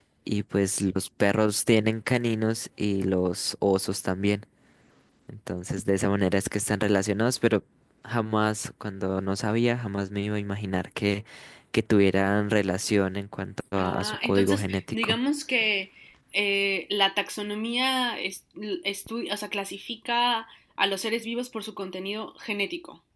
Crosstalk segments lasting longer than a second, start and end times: 13.8-15.2

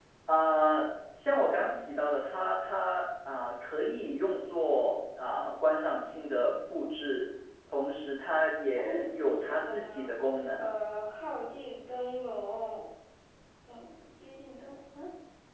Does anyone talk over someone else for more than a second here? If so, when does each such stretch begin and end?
8.8-10.1

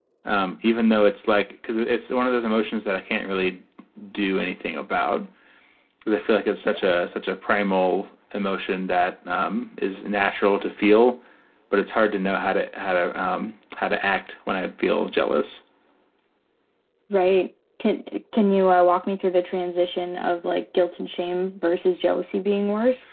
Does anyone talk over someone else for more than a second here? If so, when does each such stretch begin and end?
none

